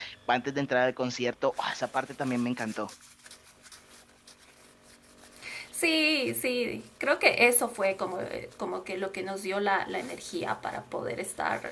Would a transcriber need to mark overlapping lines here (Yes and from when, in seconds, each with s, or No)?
No